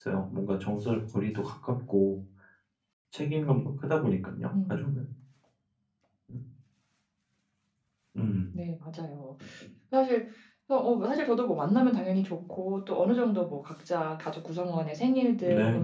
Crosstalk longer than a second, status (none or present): none